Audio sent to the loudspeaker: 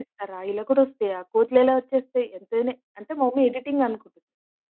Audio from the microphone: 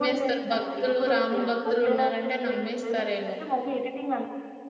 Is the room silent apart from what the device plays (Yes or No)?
No